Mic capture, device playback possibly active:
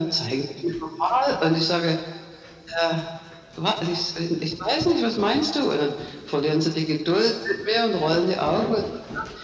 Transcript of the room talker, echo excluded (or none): none